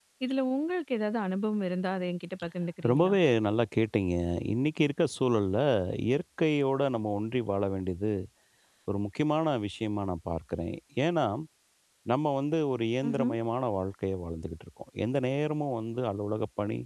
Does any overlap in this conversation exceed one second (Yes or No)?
No